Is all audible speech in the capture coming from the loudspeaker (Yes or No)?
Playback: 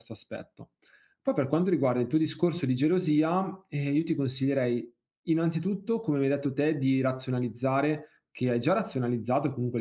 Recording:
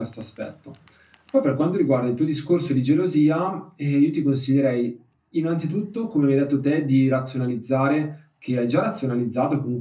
Yes